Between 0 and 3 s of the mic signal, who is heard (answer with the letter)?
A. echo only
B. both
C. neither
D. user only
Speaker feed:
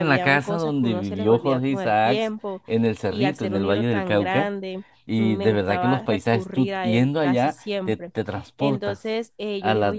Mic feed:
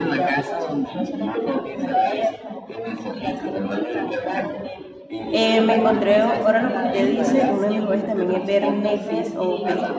A